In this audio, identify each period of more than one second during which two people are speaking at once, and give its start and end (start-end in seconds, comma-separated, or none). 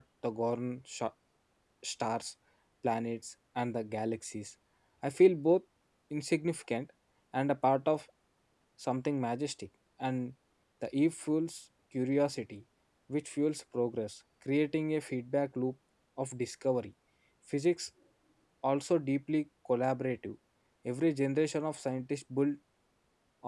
none